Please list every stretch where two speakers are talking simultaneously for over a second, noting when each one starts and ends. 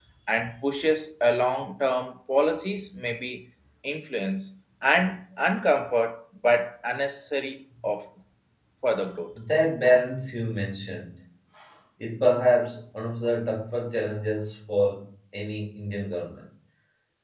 none

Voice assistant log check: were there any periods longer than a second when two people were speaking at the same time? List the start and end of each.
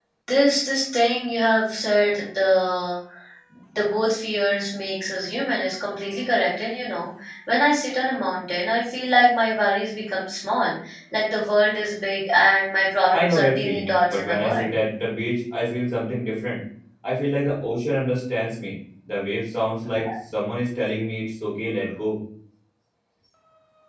13.1-14.7

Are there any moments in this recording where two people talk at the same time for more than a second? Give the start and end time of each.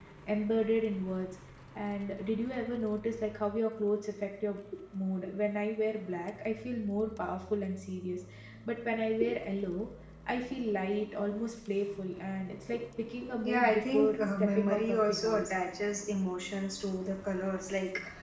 13.4-15.5

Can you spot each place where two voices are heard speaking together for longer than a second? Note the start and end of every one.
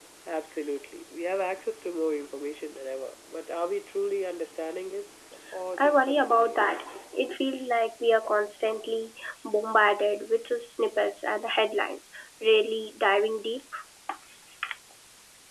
5.8-7.0

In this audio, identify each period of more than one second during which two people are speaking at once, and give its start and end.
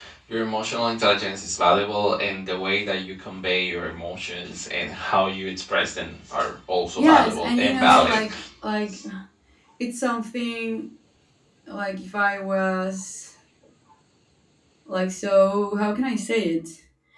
7.0-8.2

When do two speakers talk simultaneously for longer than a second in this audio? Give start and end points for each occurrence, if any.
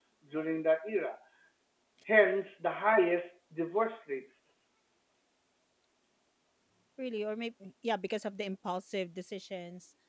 none

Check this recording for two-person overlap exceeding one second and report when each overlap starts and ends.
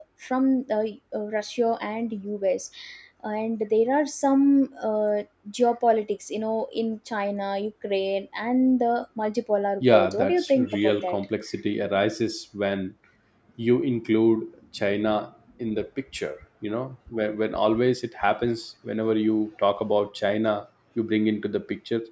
9.9-11.2

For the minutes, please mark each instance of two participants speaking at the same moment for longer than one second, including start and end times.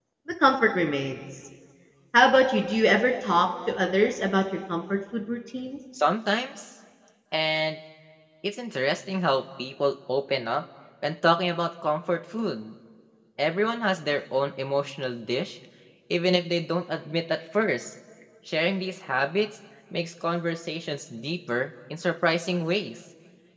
none

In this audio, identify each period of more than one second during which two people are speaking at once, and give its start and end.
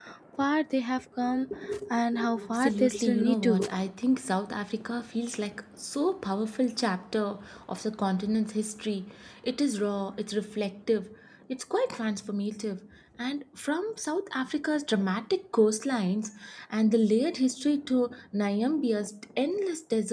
2.4-3.7

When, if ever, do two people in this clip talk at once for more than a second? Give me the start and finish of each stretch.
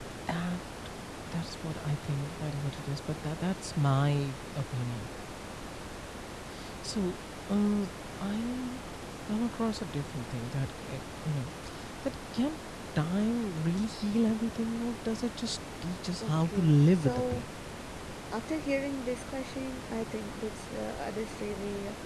16.2-17.4

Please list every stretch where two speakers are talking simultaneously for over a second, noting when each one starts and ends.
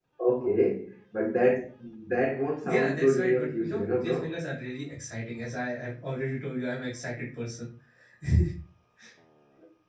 2.6-4.3

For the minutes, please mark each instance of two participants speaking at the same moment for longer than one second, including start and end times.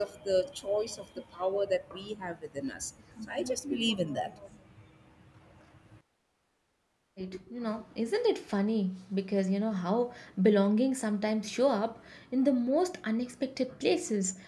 none

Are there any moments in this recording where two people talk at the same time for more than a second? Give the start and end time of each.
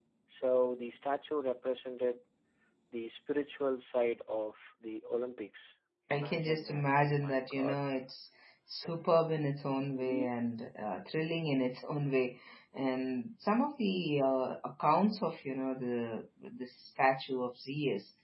6.1-7.8

